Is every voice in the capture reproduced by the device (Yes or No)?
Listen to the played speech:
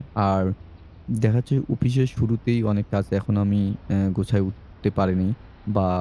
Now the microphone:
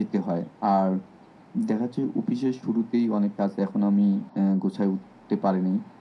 Yes